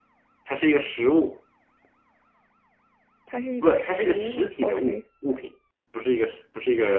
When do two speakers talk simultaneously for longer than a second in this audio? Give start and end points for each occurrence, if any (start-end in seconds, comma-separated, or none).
3.6-5.0